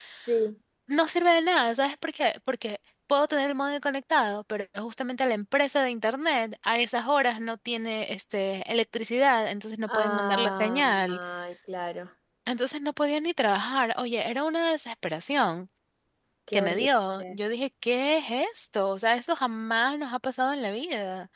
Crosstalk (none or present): present